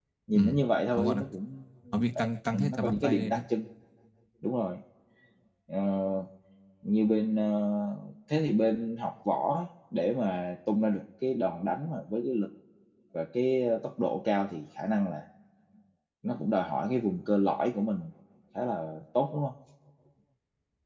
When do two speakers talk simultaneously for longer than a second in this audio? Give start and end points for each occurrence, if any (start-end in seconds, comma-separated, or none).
2.2-3.4